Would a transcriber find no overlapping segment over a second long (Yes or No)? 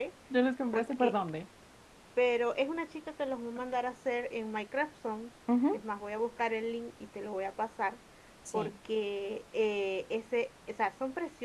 Yes